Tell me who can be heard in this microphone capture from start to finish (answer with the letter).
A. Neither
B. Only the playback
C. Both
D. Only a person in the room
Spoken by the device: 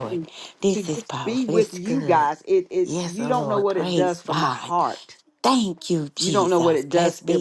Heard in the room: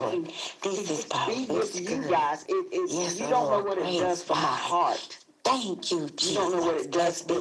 B